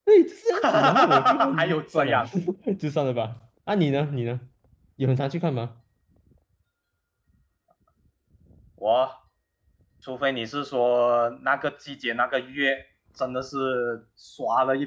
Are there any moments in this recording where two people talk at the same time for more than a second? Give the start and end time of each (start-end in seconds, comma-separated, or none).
0.5-2.2